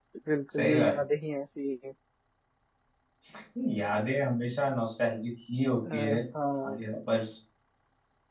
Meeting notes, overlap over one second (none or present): none